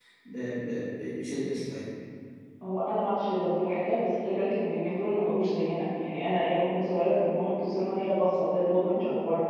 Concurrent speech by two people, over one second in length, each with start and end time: none

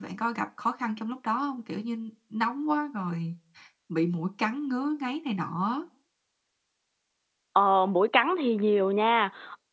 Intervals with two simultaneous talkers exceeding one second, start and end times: none

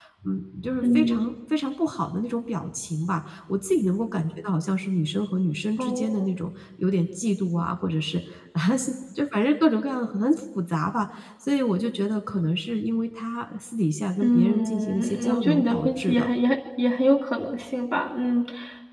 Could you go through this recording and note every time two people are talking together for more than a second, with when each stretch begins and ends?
14.2-16.3

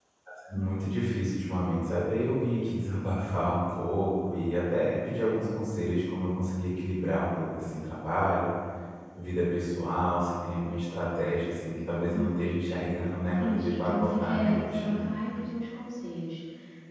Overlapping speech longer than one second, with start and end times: 13.3-15.1

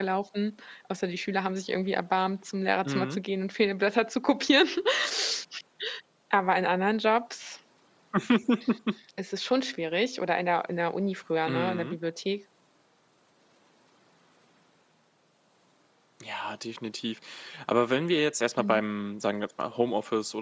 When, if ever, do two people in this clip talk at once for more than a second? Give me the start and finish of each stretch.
none

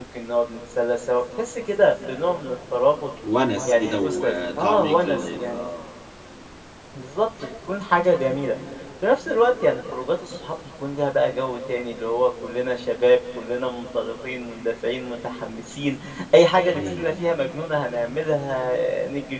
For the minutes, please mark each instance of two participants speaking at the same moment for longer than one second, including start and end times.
3.7-5.7

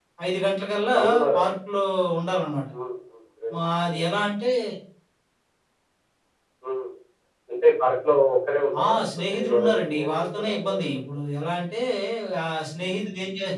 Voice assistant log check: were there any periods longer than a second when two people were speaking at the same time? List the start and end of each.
8.8-11.0

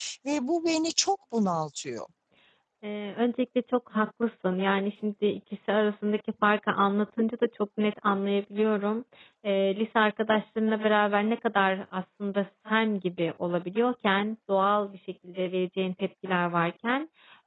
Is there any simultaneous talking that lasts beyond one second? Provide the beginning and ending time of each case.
none

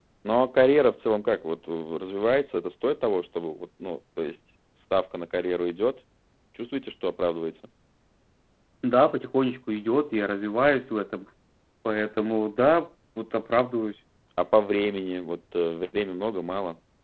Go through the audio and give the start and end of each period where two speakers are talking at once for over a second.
none

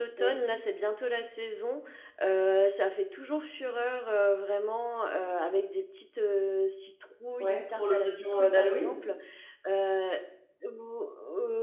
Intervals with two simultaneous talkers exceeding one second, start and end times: 7.4-9.0

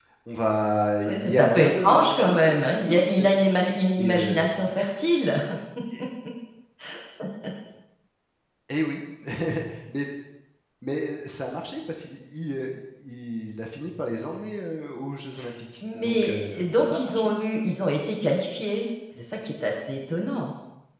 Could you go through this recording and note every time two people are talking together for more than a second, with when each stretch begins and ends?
1.1-3.4, 16.0-17.3

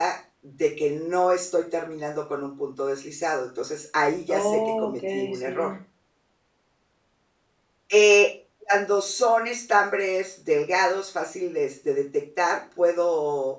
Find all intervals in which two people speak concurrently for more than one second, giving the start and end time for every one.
4.3-5.7

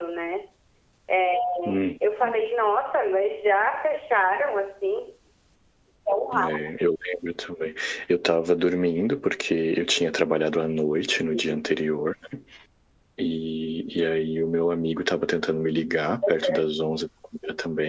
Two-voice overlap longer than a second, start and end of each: none

